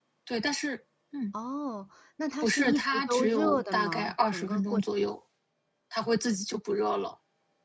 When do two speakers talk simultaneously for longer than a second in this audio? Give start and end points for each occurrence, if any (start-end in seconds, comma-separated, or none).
2.4-4.8